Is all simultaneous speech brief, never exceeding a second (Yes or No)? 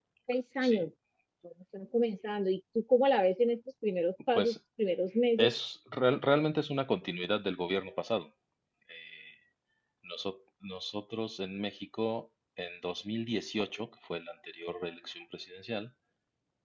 Yes